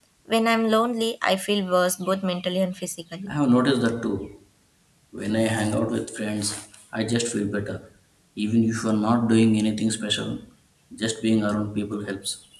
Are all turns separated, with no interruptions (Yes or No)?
Yes